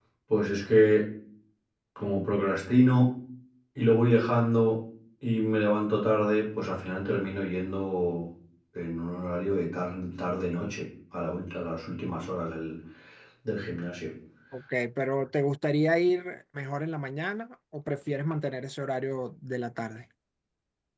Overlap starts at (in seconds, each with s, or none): none